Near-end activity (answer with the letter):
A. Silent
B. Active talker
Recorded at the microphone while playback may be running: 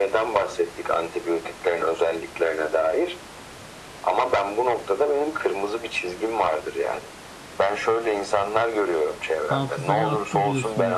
B